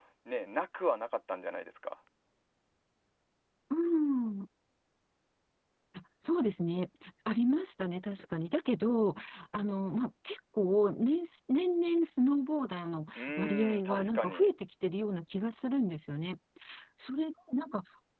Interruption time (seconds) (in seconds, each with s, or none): 13.2 s